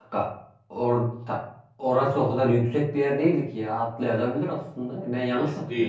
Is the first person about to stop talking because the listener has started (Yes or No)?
Yes